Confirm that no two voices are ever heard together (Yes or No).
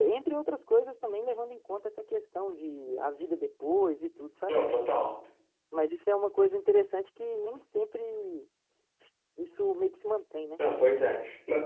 Yes